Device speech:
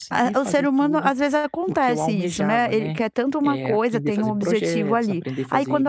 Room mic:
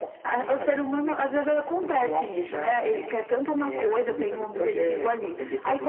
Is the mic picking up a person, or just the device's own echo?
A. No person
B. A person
A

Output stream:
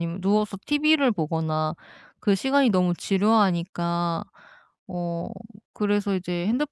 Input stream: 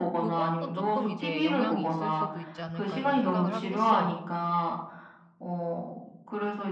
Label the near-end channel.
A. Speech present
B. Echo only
A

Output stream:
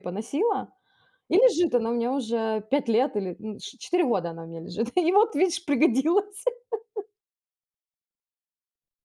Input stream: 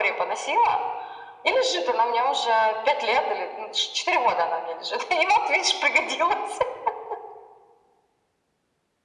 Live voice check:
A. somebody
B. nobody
B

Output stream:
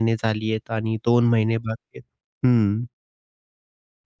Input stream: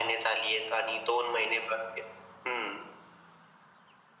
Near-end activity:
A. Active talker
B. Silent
B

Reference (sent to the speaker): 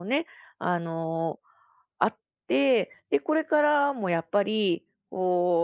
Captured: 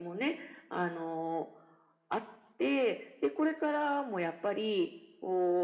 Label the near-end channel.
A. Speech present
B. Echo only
B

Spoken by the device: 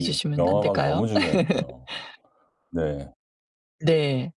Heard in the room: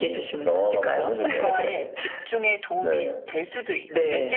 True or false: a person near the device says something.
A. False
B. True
B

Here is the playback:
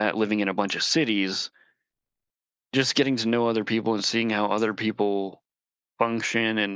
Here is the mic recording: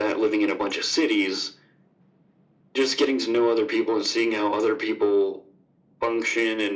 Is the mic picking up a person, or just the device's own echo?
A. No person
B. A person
A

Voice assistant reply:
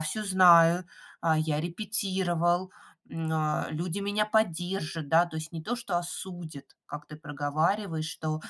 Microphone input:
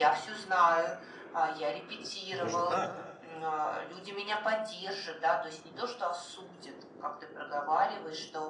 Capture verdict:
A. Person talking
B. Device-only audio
A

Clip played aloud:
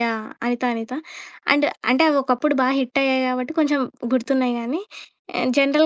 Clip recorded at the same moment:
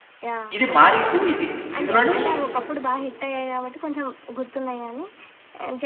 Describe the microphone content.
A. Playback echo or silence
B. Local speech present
B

